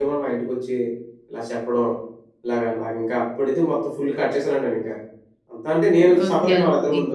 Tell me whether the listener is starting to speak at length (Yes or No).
Yes